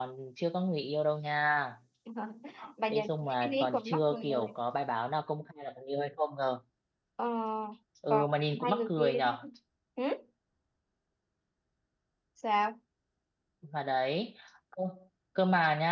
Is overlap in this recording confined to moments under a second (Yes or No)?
No